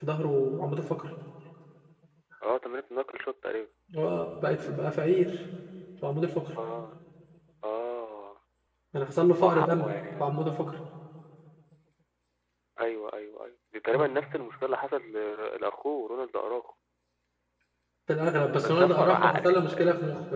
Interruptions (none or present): present